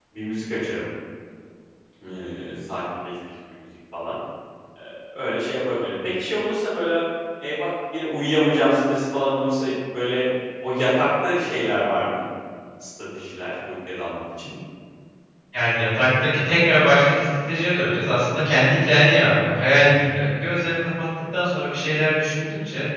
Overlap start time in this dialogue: none

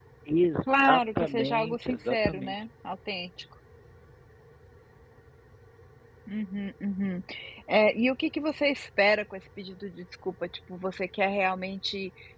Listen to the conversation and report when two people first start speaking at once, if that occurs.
0.8 s

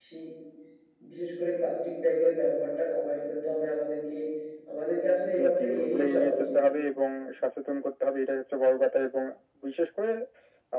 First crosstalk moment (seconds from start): 5.3 s

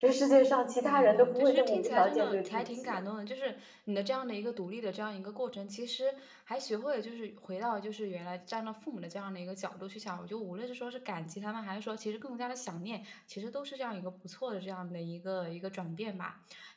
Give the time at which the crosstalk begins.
0.8 s

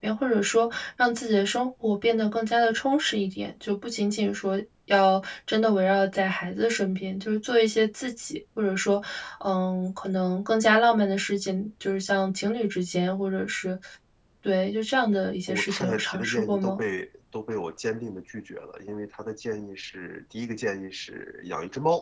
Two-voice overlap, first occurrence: 15.5 s

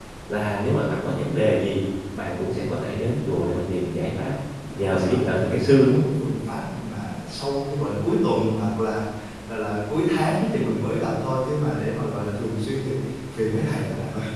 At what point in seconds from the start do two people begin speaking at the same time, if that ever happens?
4.7 s

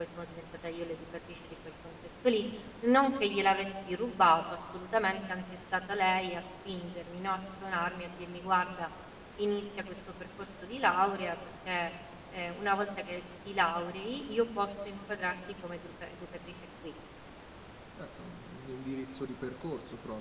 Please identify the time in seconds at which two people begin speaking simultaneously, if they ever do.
none

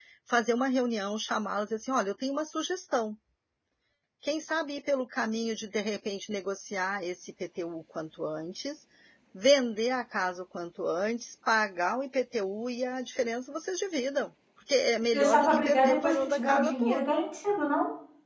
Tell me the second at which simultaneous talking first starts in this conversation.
15.1 s

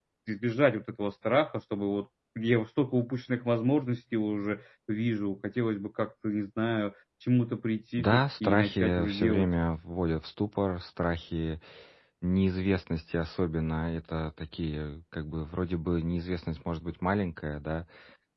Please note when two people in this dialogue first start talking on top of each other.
8.0 s

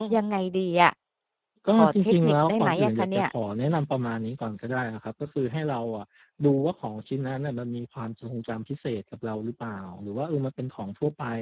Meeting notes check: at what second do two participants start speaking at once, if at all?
1.7 s

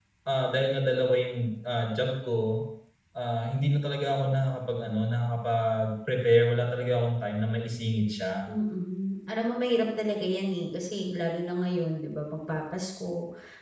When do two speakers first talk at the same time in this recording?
none

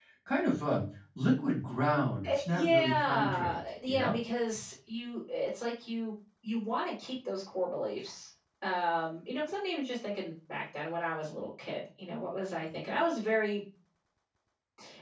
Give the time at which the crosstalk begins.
2.2 s

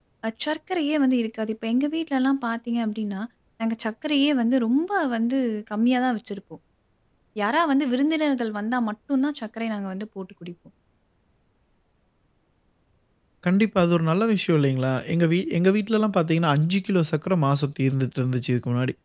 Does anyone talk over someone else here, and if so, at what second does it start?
none

